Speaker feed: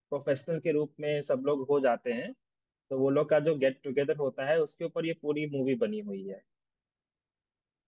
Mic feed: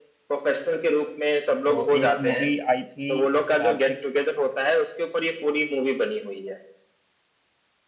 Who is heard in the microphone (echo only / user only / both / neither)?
both